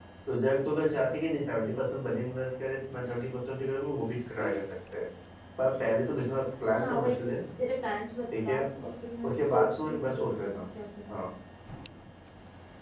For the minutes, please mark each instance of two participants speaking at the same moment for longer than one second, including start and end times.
9.2-10.6

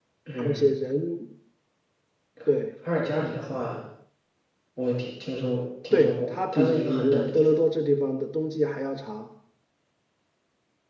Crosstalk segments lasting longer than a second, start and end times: 5.9-7.6

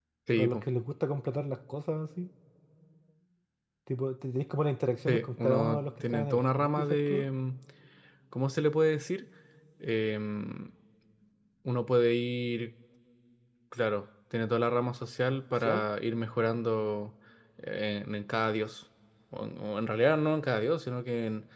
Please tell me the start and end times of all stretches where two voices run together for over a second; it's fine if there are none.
5.1-7.2

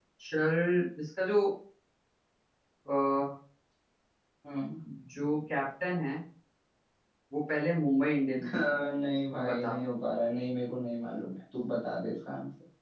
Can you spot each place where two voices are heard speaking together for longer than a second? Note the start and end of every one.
none

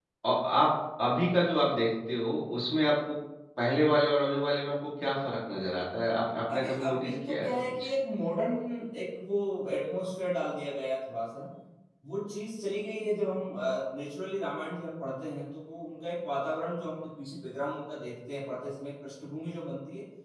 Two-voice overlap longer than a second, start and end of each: 6.5-7.9

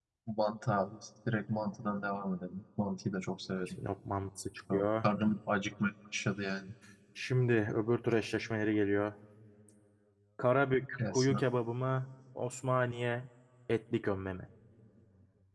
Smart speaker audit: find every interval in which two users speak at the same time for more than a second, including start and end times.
none

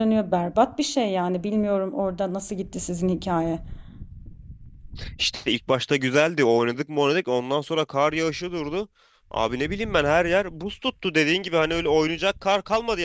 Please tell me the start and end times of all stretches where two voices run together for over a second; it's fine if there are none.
none

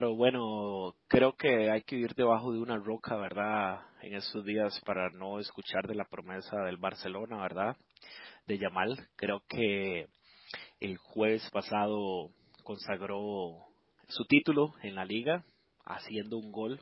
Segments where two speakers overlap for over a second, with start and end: none

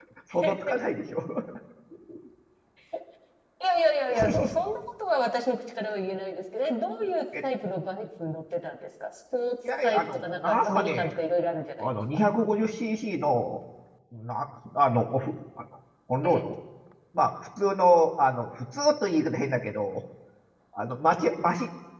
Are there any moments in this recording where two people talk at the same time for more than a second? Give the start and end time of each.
9.8-11.1

